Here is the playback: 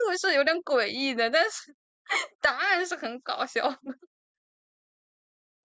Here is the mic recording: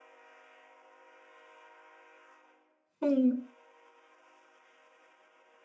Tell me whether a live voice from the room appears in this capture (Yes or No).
Yes